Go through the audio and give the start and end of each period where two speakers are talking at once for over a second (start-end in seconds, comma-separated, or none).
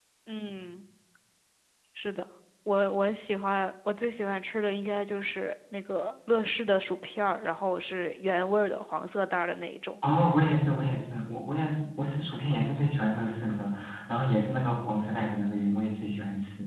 none